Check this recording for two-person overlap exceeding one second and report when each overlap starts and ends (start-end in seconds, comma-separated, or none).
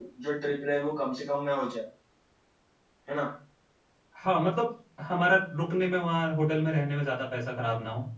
none